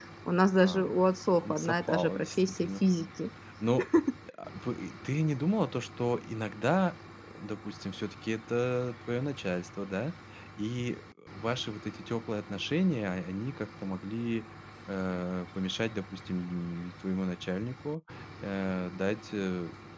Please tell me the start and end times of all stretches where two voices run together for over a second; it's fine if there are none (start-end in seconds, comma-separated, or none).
1.4-2.8